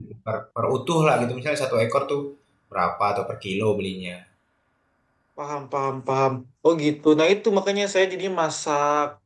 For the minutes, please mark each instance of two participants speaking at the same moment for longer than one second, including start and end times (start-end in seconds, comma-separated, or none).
none